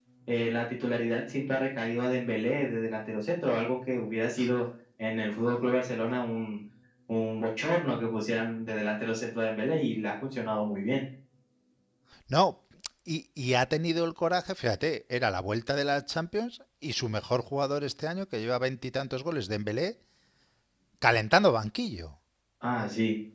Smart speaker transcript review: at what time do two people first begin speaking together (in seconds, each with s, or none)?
none